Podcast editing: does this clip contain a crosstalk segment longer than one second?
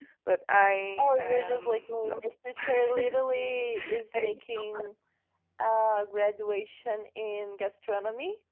Yes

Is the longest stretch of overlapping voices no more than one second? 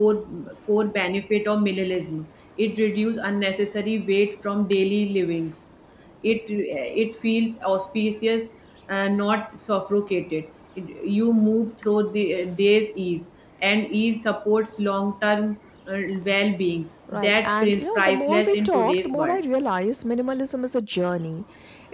No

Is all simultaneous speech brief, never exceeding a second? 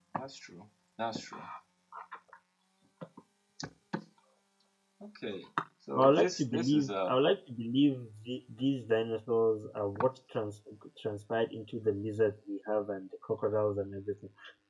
No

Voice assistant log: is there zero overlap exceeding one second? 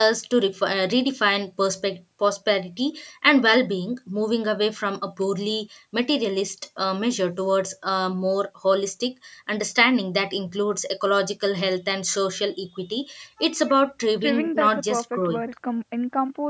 No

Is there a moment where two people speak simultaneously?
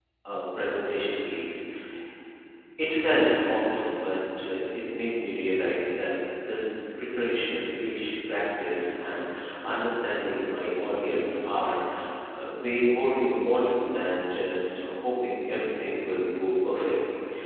No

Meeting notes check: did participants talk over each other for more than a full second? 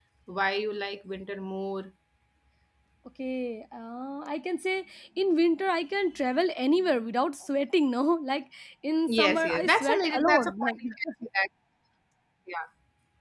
Yes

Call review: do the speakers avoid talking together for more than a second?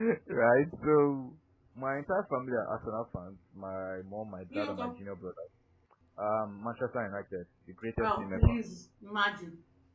Yes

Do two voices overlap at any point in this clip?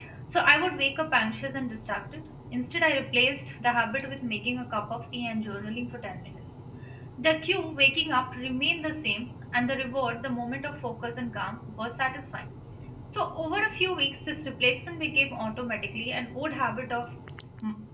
No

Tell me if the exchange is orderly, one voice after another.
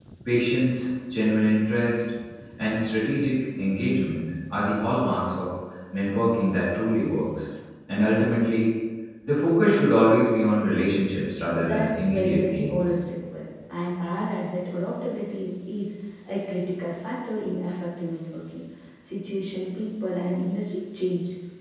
No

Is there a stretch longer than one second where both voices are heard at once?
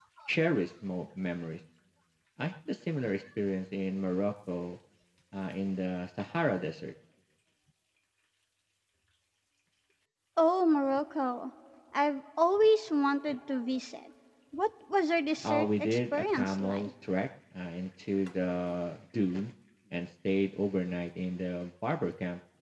Yes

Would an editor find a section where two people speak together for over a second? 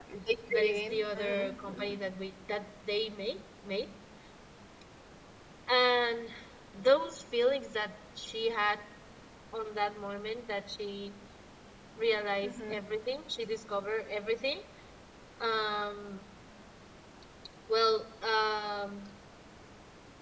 Yes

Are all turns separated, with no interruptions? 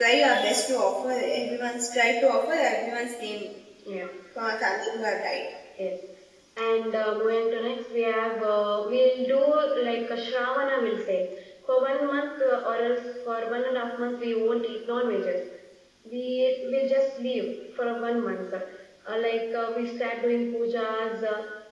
Yes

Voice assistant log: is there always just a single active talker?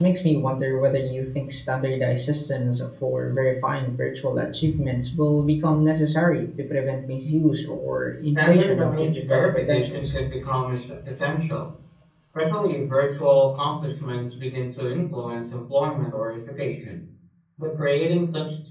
No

